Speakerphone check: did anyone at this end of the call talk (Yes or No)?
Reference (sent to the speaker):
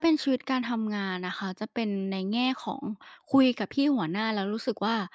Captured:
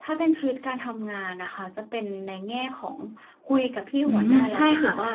Yes